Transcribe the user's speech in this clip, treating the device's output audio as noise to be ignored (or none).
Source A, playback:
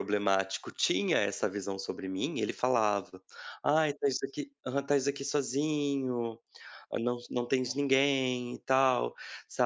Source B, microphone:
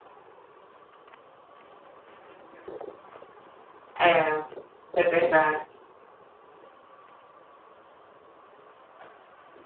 É, é verdade.